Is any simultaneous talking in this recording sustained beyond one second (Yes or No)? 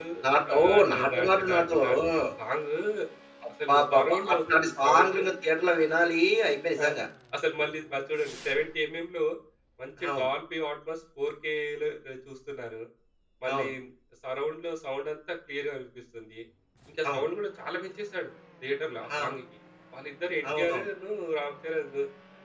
Yes